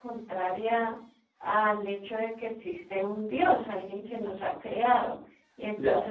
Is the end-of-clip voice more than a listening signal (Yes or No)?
No